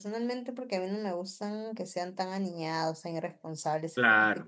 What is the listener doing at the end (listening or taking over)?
listening